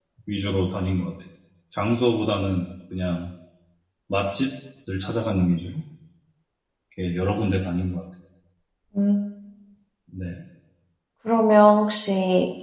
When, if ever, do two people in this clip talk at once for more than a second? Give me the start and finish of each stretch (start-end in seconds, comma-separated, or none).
none